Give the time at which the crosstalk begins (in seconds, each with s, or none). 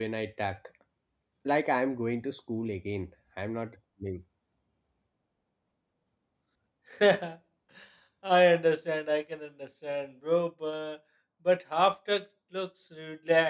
none